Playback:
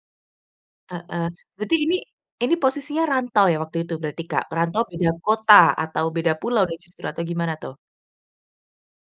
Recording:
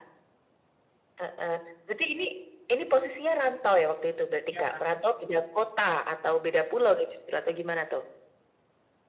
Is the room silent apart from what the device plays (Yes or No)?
No